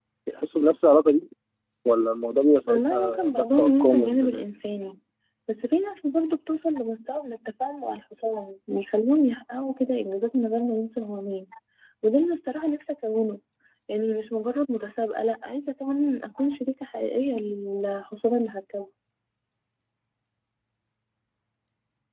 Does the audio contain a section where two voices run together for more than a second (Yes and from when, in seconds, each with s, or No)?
Yes, from 2.7 s